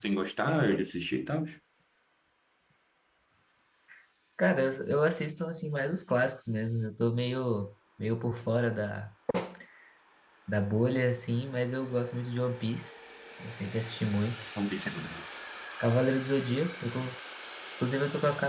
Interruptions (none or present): none